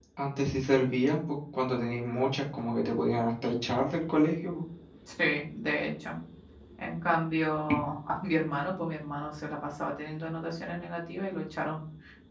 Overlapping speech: No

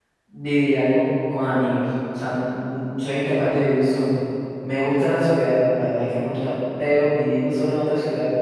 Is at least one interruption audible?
No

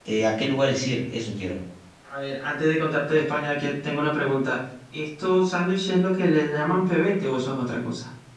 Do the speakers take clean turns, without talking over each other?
Yes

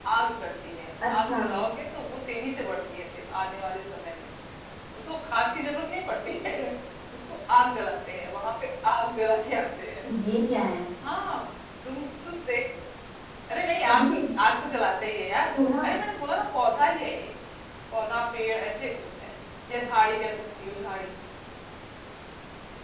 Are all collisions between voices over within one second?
Yes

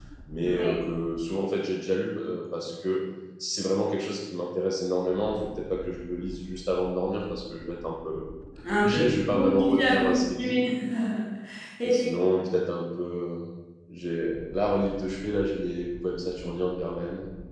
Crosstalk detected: Yes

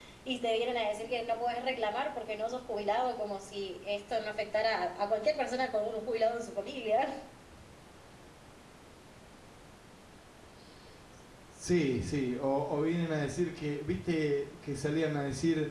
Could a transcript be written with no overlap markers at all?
Yes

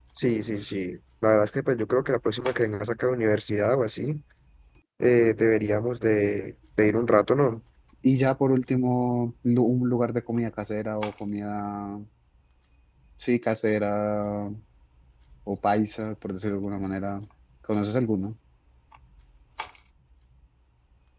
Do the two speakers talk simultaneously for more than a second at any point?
No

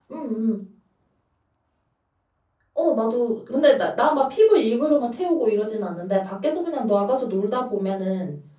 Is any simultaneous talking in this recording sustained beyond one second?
No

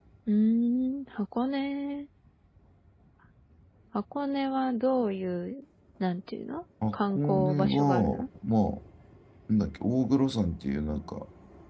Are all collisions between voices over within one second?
No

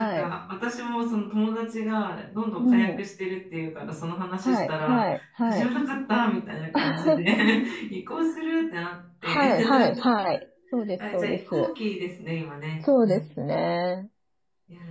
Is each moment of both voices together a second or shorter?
No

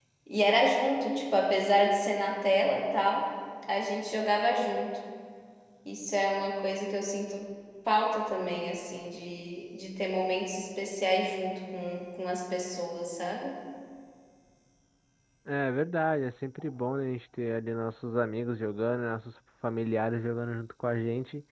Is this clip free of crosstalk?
Yes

